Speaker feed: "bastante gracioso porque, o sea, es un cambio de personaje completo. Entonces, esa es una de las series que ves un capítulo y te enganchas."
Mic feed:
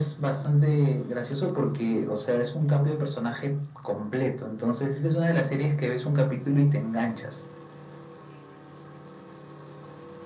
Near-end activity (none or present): none